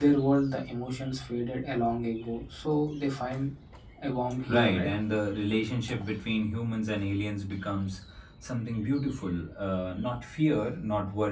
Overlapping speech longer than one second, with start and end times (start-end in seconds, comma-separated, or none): none